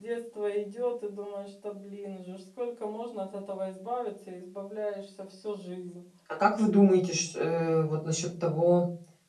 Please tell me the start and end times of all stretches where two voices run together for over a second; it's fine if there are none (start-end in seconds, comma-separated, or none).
none